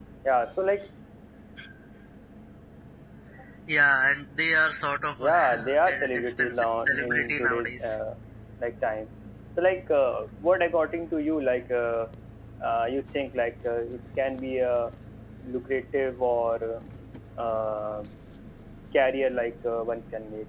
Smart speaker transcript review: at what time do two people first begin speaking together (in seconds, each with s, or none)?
5.2 s